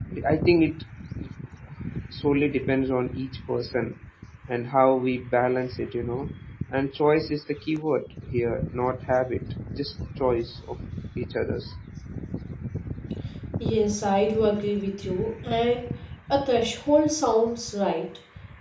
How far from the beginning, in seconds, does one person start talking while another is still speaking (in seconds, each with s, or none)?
none